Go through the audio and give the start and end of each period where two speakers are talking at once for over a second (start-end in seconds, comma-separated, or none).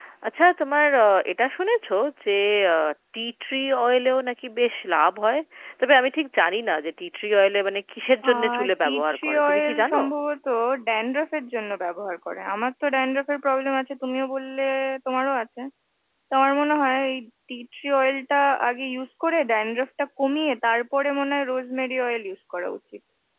8.3-10.0